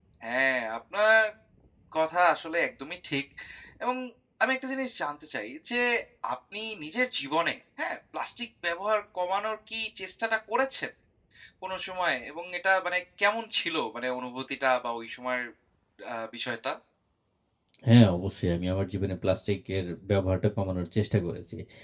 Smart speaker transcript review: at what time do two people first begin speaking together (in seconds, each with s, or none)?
none